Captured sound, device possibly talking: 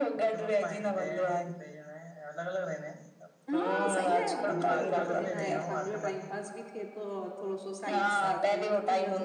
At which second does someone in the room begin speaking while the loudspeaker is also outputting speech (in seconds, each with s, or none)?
3.5 s